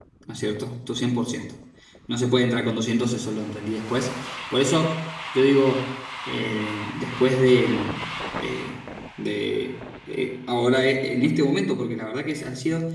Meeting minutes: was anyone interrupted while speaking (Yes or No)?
No